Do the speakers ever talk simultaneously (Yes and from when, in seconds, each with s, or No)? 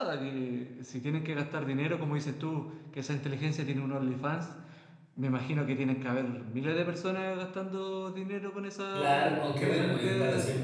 Yes, from 8.9 s